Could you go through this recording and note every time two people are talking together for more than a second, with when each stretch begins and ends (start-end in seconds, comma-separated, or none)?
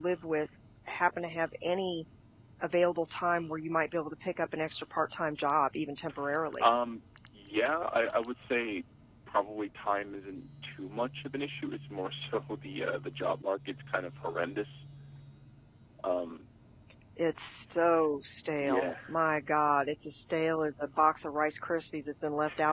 none